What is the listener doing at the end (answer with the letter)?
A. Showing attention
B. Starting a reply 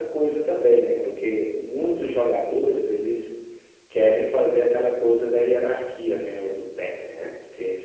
A